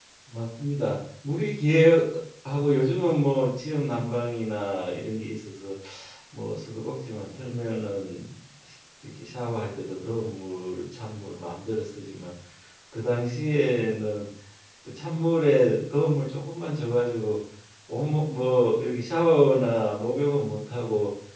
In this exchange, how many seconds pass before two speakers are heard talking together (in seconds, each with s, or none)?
none